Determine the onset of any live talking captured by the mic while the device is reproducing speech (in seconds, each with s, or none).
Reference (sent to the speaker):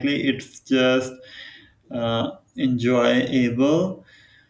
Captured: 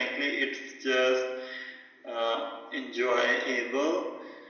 none